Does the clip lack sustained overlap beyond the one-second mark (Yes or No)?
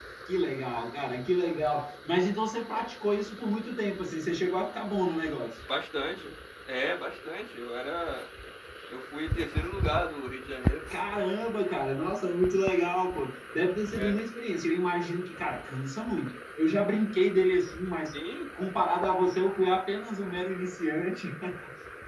Yes